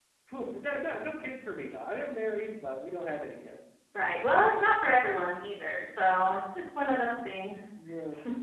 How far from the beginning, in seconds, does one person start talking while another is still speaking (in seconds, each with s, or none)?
none